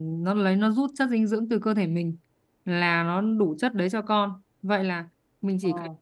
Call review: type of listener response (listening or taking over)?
listening